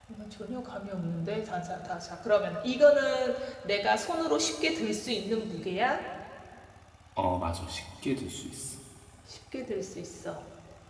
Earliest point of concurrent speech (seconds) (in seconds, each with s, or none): none